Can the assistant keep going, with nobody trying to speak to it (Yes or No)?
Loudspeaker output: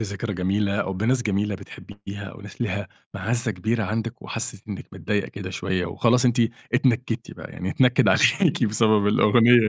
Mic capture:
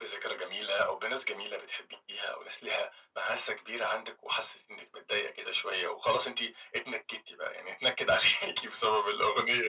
Yes